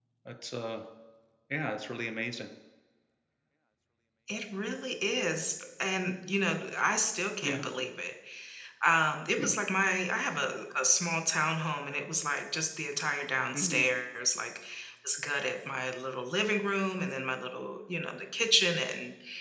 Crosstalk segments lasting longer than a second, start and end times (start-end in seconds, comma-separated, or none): none